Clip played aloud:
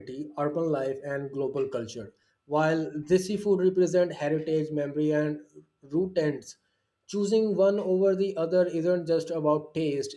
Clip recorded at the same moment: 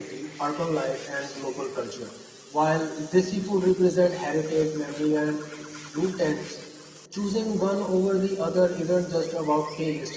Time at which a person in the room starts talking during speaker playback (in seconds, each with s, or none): none